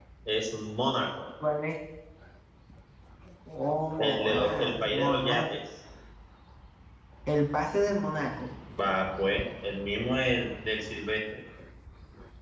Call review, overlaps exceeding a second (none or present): present